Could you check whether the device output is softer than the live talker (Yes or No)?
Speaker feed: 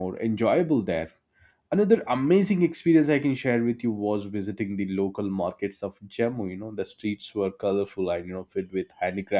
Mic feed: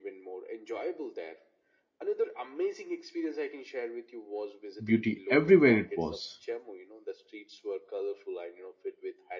Yes